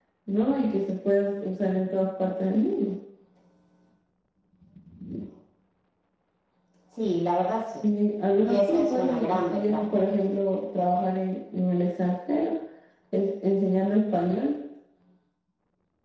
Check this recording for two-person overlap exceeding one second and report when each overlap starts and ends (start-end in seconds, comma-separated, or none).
8.4-9.8